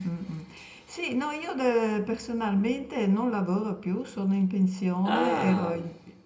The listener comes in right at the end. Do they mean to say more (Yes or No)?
No